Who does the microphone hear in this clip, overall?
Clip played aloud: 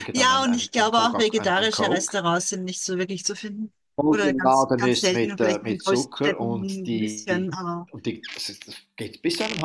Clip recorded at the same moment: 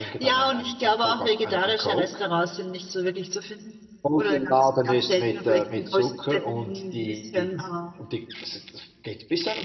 echo only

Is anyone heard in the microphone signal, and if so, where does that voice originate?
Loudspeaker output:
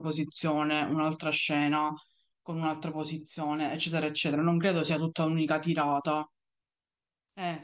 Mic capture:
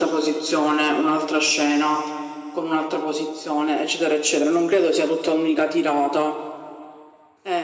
echo only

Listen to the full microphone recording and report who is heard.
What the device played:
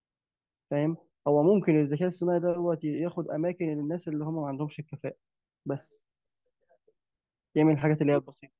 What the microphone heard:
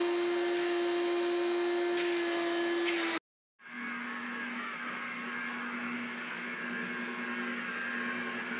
neither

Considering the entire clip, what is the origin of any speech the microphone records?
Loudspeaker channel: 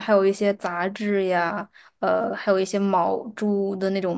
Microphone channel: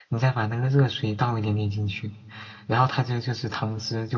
user only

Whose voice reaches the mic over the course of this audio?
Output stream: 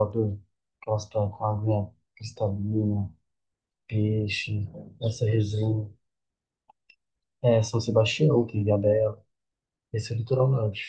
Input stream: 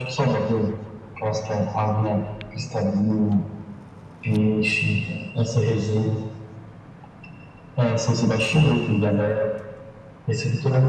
echo only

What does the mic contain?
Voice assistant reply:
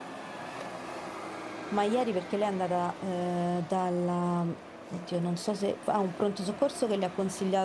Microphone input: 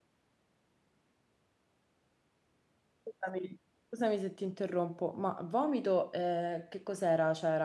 user only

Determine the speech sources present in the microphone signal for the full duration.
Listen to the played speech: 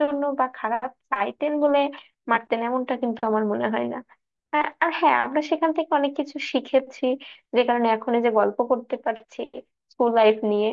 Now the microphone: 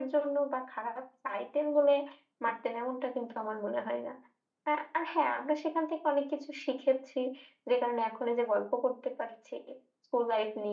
echo only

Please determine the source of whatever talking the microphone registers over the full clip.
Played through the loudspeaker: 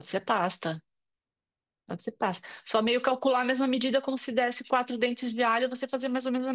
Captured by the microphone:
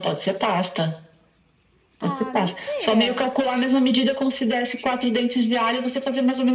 both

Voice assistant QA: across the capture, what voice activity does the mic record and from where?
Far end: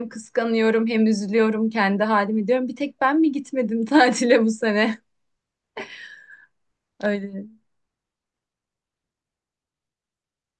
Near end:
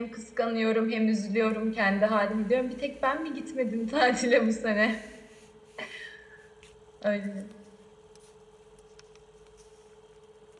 echo only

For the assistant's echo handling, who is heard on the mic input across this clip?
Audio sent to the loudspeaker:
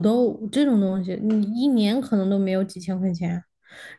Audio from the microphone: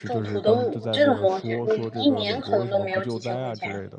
both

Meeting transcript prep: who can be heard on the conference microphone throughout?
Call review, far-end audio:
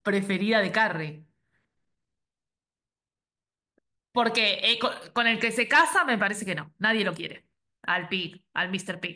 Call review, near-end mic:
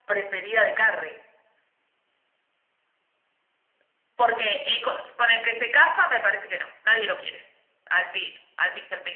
echo only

